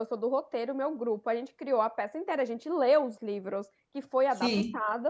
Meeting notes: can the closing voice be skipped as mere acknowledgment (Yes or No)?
Yes